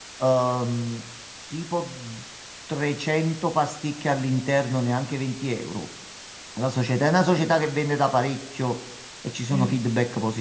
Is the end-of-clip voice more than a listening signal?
No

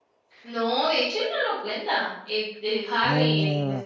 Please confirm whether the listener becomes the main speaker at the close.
No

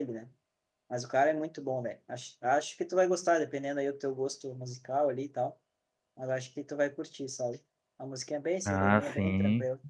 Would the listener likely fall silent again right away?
No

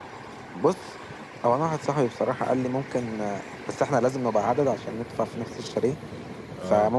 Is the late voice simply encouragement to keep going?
Yes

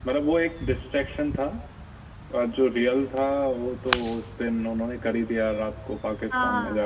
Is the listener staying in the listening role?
No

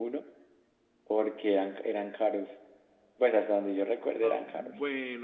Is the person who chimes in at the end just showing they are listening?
No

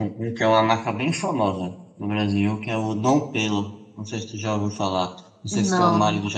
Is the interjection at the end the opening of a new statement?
No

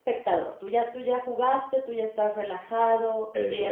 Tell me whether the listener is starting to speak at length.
No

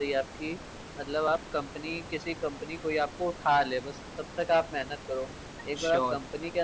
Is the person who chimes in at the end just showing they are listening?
Yes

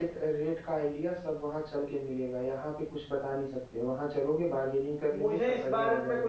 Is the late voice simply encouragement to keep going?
No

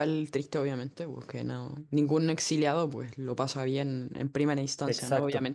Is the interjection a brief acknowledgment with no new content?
Yes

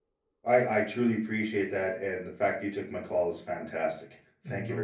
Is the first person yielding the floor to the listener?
Yes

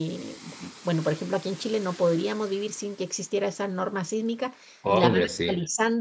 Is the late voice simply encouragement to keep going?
Yes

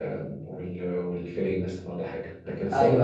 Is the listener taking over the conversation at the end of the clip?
No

